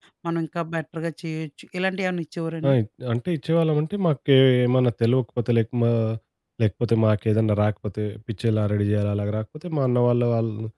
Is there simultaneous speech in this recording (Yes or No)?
No